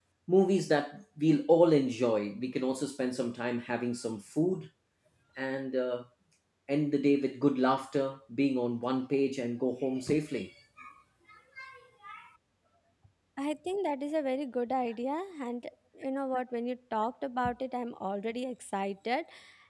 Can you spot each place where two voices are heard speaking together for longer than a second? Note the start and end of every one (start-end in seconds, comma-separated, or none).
none